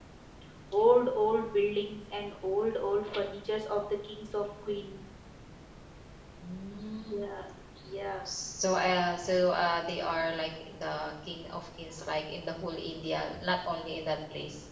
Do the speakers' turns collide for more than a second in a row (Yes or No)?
No